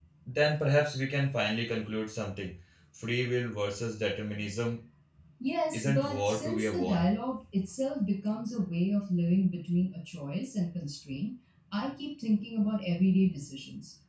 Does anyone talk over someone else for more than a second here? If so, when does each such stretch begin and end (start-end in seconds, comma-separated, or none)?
5.7-7.1